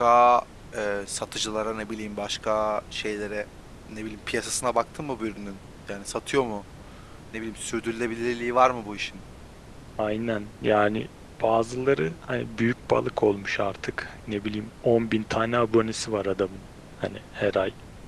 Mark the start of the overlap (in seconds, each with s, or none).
none